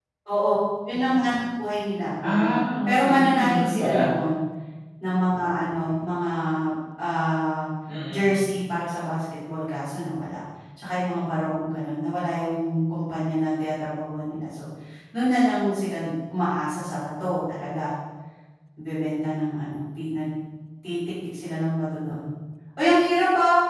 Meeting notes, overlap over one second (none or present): present